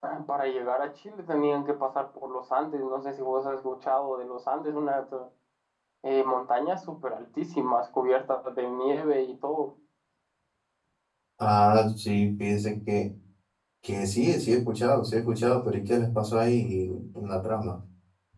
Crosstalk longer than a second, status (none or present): none